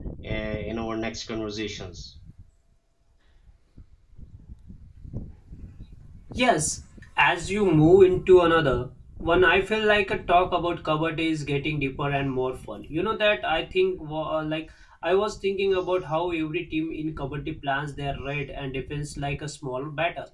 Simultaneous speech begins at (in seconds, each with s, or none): none